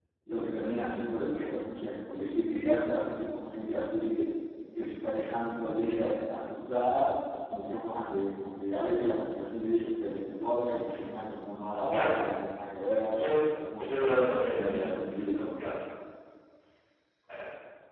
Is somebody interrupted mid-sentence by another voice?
Yes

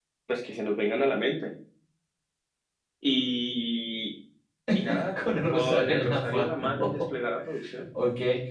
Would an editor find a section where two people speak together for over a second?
Yes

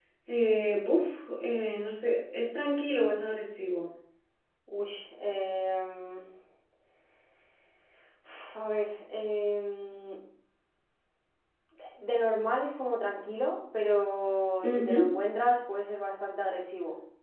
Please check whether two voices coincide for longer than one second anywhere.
No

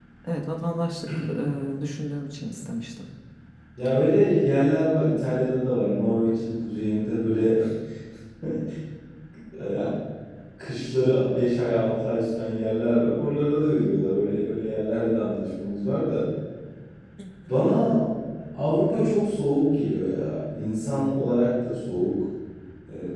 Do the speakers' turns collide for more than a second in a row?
No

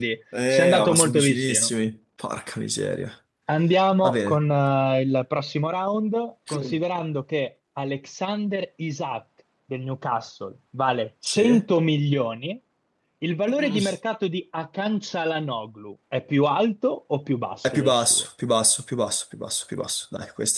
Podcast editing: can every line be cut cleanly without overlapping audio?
No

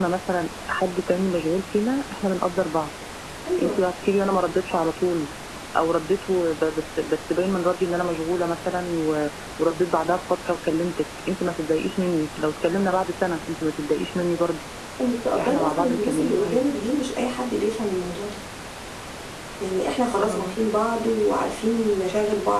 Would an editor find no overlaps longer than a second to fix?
No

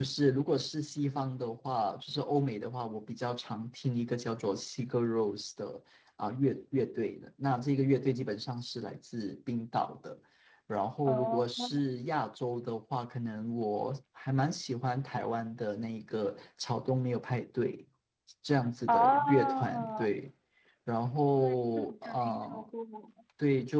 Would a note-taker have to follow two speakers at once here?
Yes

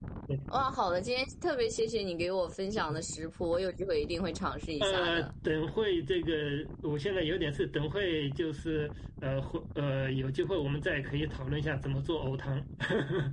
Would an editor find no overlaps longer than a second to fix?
Yes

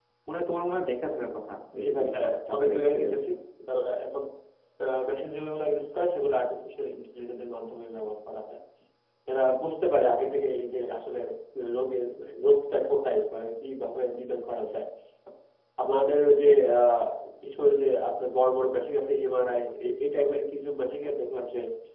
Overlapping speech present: Yes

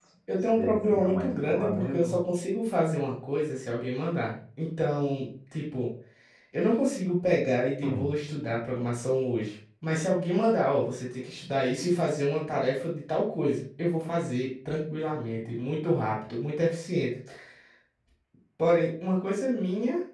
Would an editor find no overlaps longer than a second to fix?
No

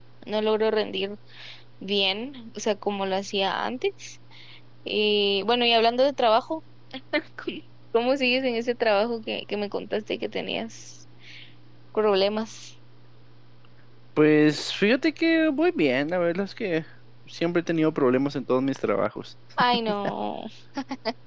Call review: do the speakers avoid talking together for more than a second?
Yes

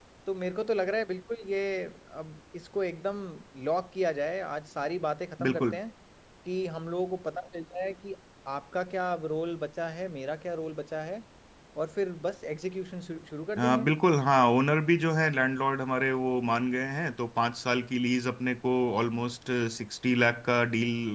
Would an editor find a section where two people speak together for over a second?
No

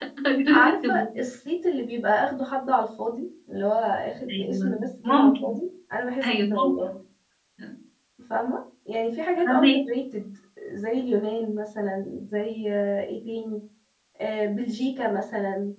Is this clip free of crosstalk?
No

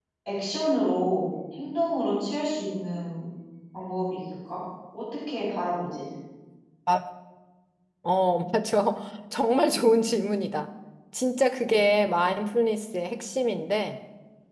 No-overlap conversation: Yes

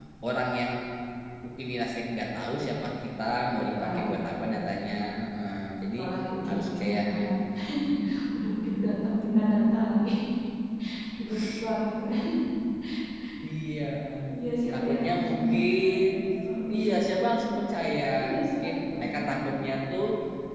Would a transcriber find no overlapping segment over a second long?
No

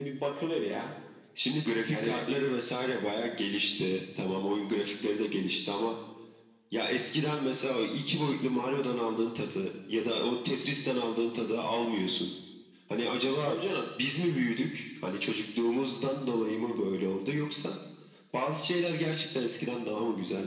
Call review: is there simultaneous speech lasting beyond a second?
No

